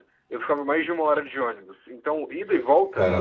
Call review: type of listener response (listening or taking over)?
listening